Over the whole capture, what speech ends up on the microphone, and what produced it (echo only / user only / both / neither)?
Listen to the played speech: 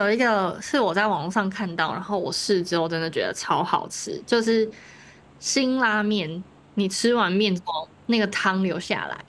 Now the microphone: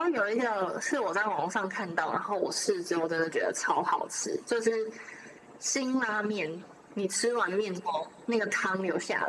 echo only